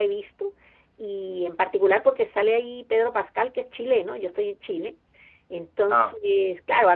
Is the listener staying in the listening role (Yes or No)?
Yes